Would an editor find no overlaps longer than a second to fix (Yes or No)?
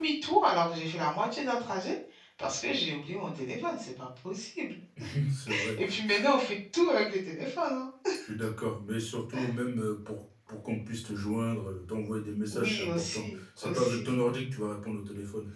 No